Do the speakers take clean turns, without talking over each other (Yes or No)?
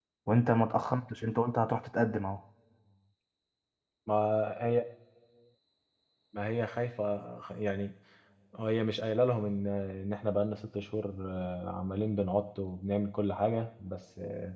Yes